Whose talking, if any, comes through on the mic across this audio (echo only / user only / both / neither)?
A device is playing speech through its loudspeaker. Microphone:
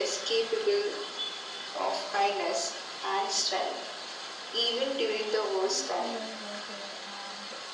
both